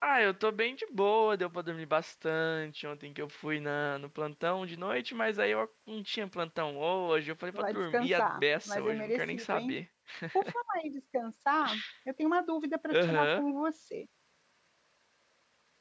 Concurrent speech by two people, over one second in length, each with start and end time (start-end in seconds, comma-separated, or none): 7.5-9.8